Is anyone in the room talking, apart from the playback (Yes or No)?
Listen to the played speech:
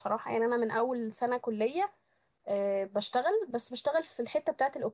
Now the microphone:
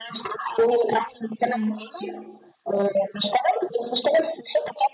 Yes